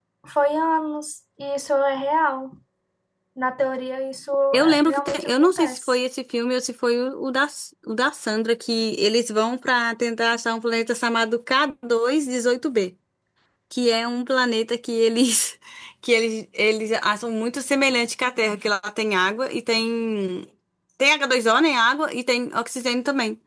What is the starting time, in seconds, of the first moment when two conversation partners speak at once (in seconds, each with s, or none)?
4.5 s